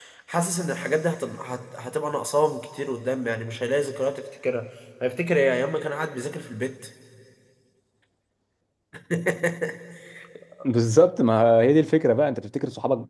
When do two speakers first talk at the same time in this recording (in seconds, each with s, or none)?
none